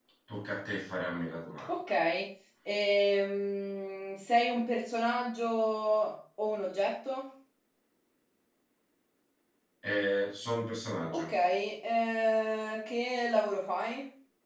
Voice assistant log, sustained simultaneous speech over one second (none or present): none